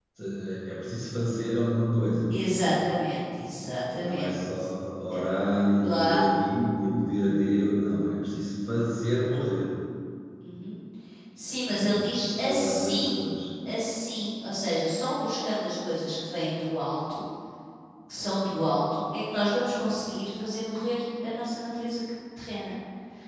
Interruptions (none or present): present